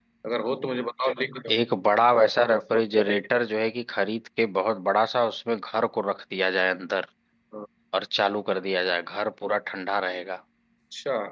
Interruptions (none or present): none